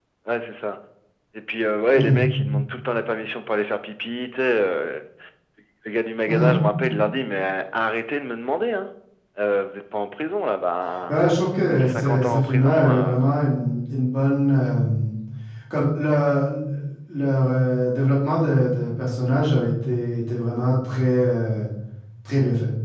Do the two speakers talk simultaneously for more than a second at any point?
Yes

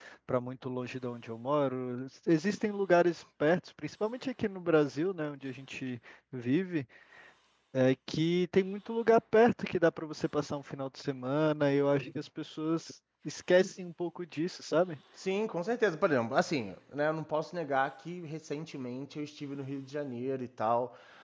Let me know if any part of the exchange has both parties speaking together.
No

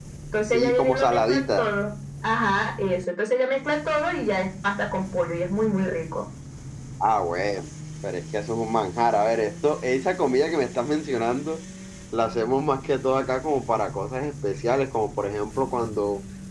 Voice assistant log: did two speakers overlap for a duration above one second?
Yes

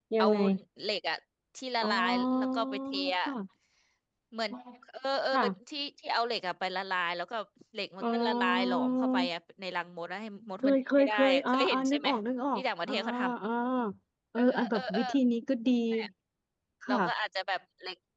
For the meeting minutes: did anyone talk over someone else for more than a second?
Yes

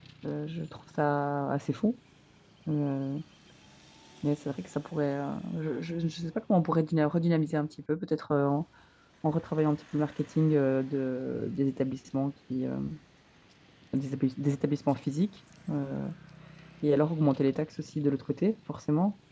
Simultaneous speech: No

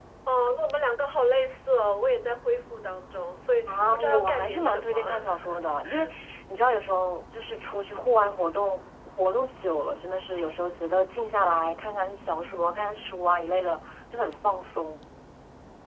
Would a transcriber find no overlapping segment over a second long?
No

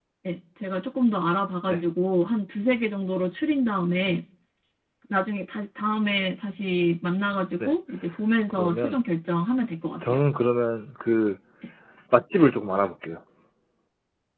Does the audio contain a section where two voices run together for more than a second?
No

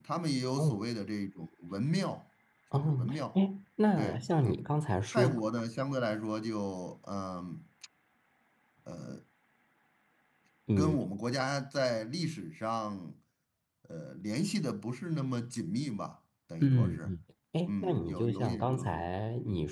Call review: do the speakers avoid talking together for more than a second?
No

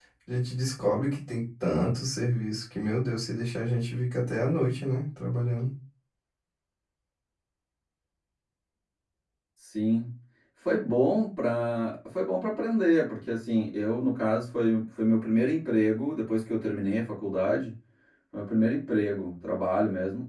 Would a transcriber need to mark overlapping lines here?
No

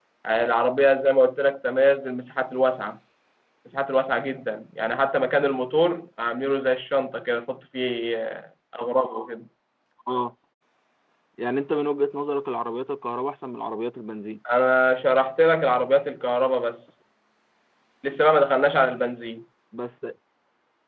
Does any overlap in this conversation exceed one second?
No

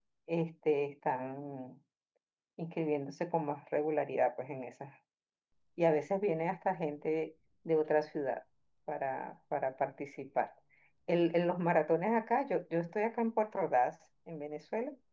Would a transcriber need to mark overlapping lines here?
No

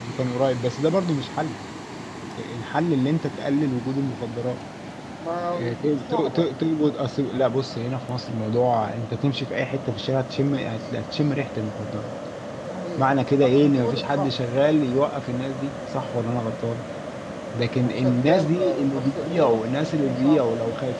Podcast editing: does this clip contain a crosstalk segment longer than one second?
Yes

